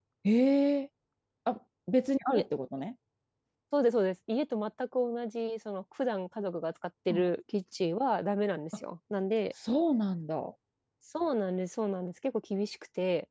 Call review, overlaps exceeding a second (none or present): none